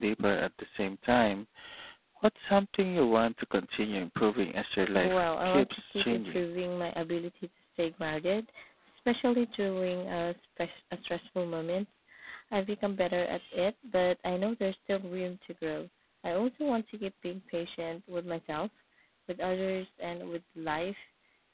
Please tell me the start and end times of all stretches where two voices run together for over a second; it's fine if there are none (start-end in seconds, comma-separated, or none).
4.9-6.4